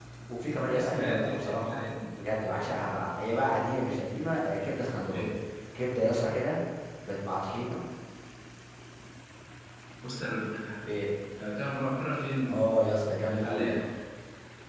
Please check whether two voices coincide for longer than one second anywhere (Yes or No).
Yes